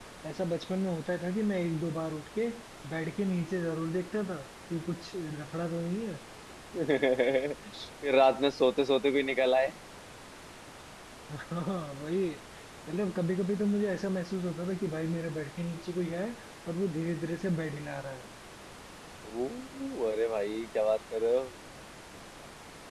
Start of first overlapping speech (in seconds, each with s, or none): none